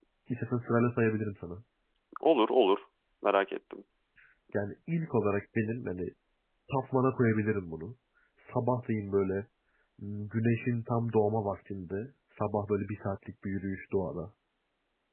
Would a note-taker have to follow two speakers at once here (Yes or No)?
No